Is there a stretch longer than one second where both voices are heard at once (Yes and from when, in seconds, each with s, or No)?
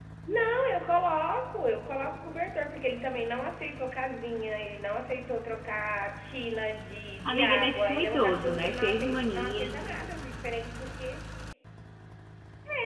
Yes, from 7.2 s